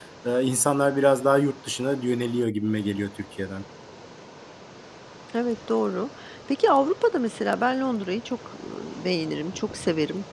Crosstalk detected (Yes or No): No